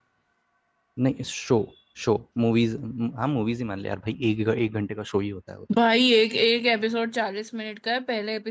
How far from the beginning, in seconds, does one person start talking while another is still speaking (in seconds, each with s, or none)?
none